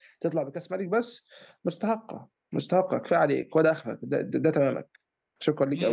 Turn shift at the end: Yes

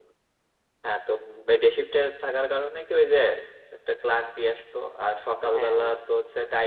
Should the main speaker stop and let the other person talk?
No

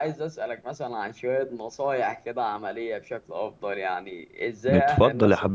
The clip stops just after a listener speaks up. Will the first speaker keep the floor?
No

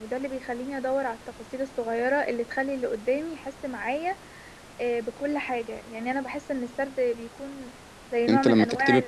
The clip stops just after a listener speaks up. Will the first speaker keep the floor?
No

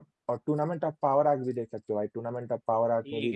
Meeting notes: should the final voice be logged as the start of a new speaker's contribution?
Yes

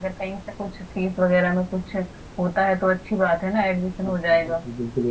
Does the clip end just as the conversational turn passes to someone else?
Yes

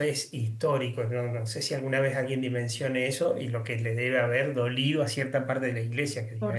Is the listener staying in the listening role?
No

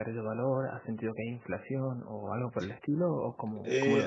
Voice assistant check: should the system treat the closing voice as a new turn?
Yes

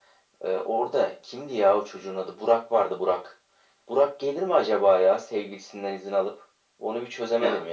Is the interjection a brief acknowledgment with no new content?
Yes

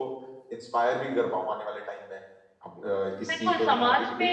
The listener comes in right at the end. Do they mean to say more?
Yes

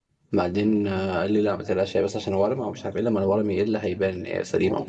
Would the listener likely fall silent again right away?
No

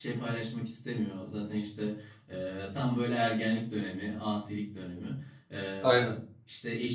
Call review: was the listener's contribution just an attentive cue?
Yes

